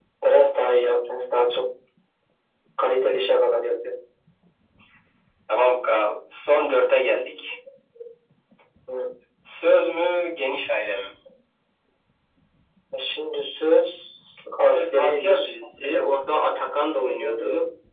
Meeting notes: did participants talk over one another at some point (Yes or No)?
Yes